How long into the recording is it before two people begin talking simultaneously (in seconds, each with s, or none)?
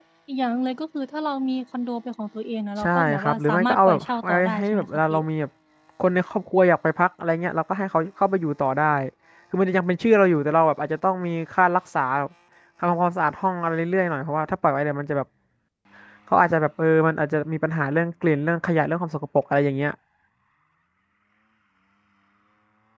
2.8 s